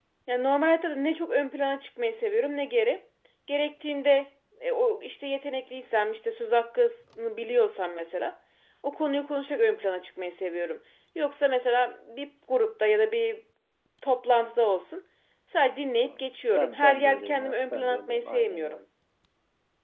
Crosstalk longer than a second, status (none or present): present